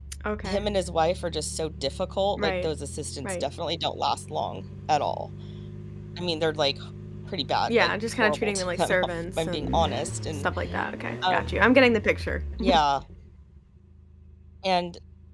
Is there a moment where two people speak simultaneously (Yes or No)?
Yes